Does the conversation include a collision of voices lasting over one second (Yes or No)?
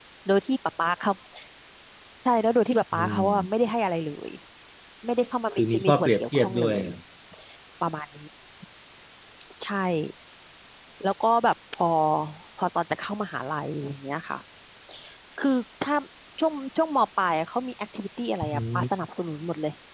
Yes